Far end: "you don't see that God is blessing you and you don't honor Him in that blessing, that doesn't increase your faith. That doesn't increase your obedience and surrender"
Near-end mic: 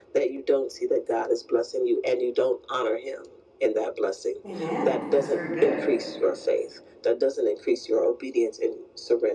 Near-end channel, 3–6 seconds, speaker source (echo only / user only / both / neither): both